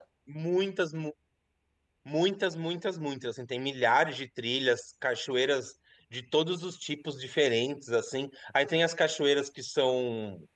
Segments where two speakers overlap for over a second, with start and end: none

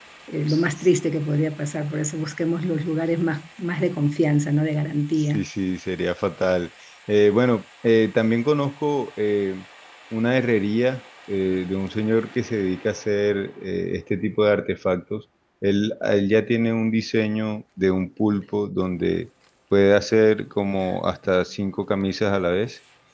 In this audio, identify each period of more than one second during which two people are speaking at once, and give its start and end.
none

